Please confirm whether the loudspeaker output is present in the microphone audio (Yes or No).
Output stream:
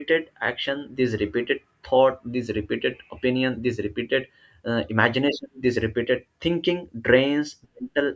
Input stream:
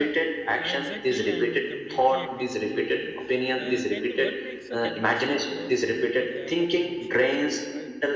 Yes